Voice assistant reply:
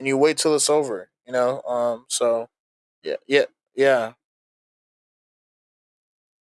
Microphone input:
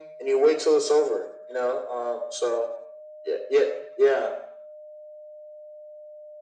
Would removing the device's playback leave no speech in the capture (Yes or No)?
Yes